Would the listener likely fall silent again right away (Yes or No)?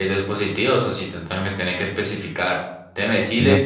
Yes